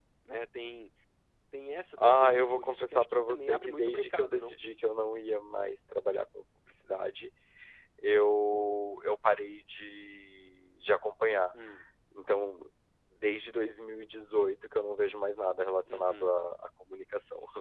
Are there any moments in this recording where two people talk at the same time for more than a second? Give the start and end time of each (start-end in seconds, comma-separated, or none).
2.0-4.5